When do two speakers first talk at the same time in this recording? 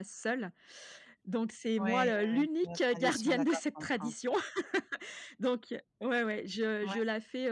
2 s

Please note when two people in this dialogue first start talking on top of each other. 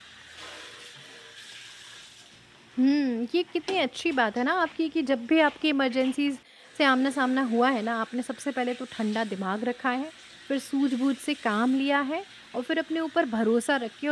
none

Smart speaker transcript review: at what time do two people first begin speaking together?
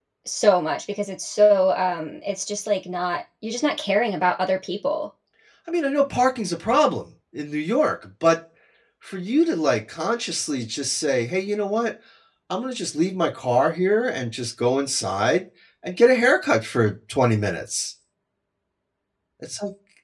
none

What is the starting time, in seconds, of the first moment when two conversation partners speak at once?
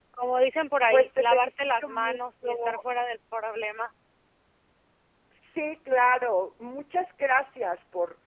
1 s

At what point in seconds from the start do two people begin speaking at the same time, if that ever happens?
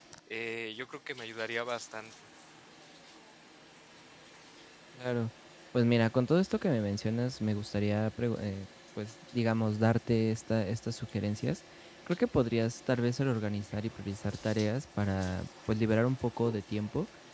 none

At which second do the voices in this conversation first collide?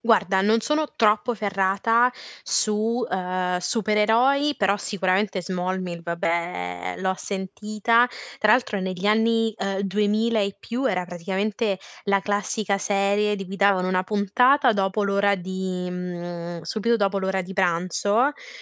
none

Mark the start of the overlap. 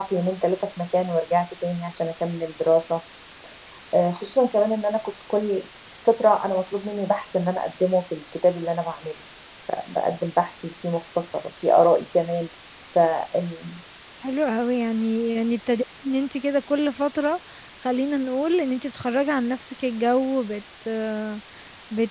none

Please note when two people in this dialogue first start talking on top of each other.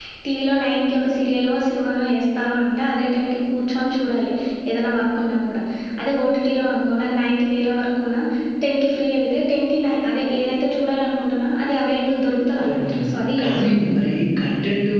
13 s

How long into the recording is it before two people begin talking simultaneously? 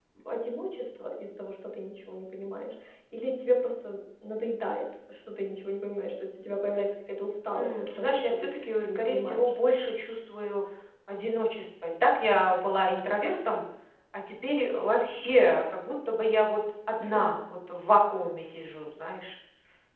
8 s

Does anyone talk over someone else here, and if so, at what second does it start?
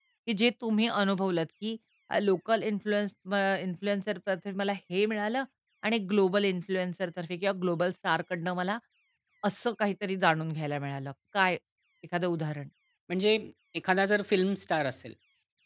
none

